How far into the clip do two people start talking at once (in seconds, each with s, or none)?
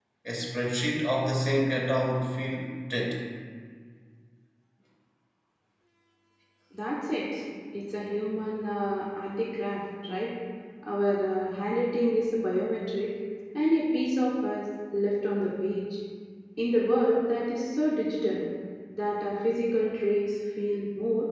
none